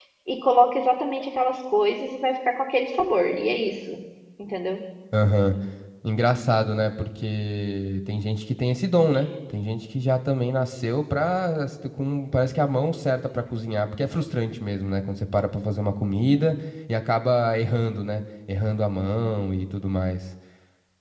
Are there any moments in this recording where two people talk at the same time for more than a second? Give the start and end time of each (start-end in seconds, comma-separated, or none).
none